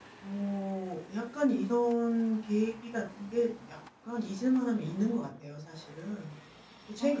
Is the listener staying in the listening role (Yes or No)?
Yes